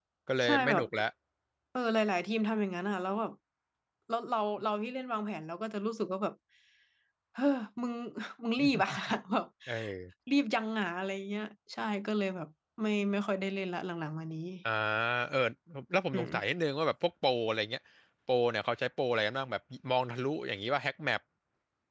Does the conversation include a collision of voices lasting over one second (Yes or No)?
No